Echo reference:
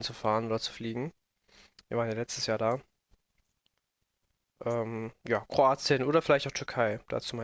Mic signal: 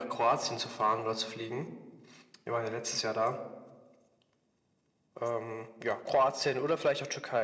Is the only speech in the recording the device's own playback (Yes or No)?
Yes